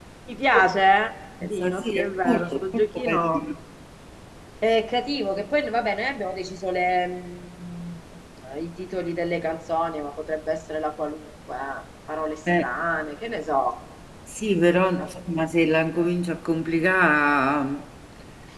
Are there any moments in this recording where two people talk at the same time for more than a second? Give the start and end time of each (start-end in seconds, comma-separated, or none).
1.6-3.4